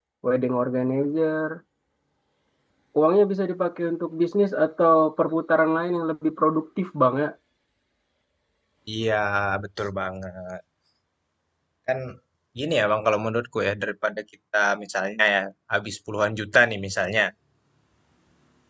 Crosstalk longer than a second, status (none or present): none